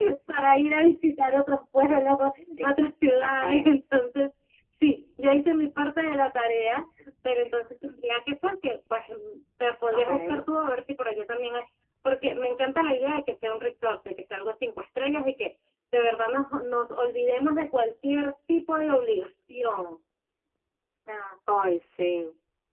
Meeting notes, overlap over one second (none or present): none